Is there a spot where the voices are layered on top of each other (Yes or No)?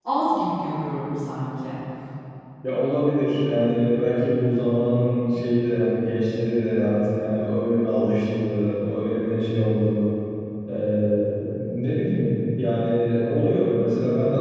No